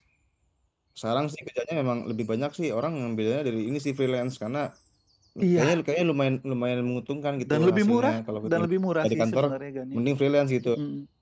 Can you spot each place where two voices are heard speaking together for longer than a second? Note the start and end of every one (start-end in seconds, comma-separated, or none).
7.4-8.6